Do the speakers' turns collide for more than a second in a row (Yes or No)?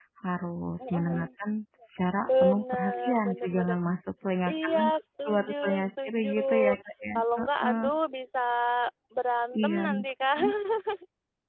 Yes